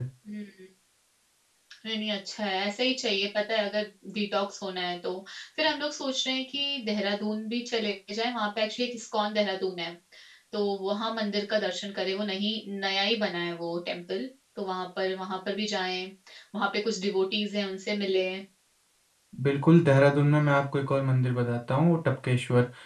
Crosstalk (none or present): none